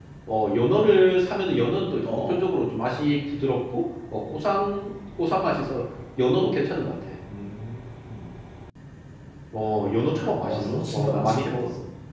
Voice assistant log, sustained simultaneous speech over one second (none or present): present